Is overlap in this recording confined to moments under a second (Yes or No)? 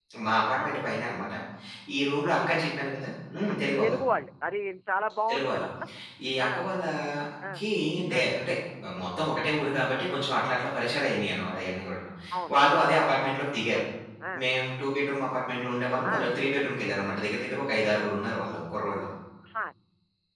Yes